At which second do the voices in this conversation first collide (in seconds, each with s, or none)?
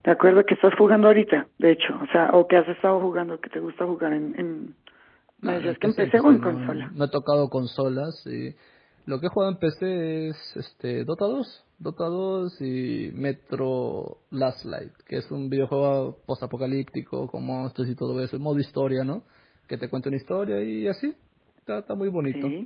5.4 s